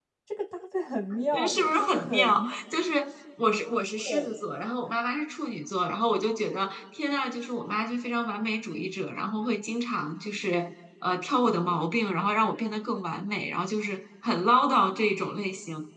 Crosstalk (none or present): present